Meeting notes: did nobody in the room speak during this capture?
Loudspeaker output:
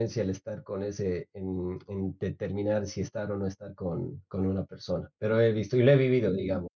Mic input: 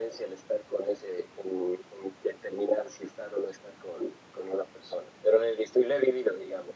Yes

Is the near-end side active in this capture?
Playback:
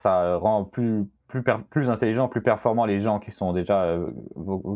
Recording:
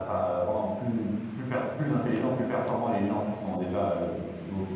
No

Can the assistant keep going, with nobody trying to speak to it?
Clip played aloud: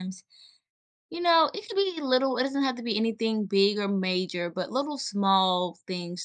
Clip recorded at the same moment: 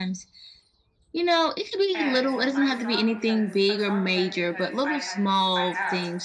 No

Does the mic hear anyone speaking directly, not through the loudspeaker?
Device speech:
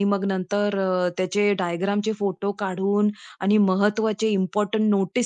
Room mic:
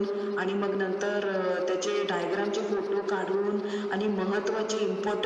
No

